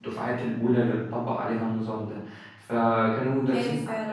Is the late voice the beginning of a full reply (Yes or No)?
Yes